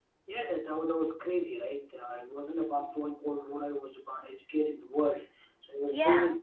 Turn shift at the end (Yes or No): No